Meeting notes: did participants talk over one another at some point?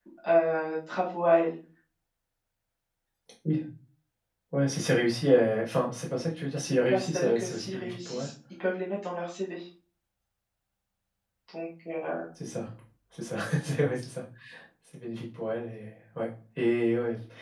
Yes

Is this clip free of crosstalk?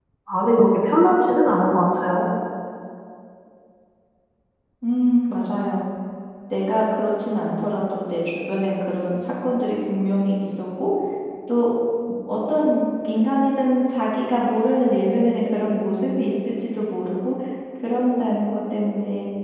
Yes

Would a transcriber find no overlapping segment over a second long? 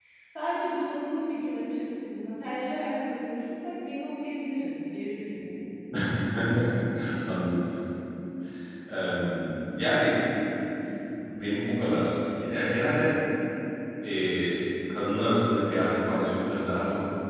Yes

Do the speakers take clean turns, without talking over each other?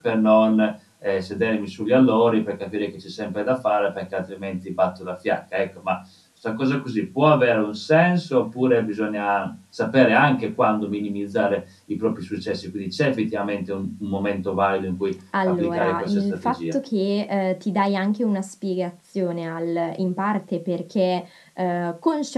No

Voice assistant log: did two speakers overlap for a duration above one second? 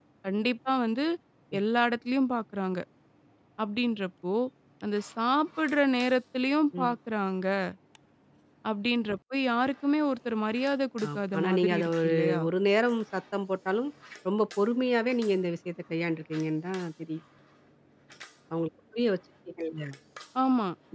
Yes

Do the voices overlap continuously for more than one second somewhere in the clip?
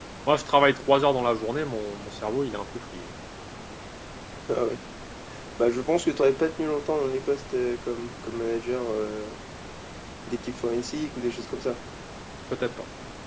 No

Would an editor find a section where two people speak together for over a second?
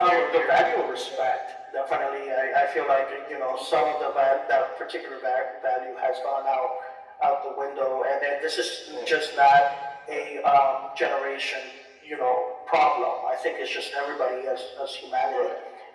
Yes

